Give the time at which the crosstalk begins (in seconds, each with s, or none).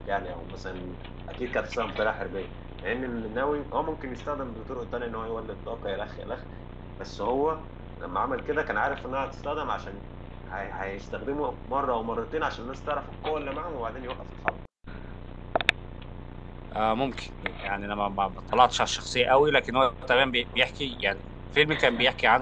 none